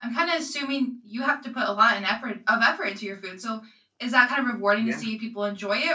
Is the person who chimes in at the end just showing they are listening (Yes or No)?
Yes